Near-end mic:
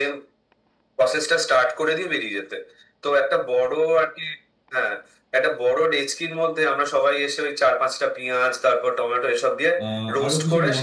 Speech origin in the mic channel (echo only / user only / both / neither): both